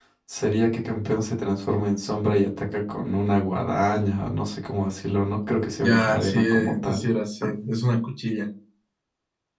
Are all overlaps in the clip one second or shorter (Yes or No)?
No